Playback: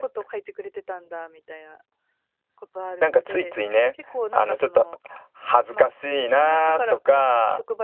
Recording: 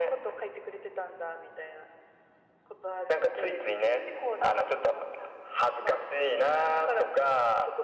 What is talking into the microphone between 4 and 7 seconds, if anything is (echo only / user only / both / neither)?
echo only